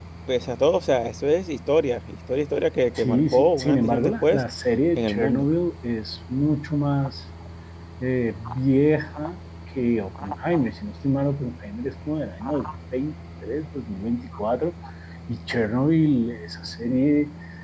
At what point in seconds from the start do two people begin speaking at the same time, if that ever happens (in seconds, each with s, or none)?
3.0 s